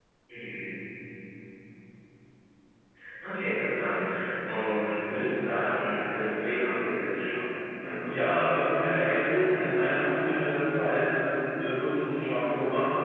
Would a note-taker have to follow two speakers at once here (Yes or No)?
Yes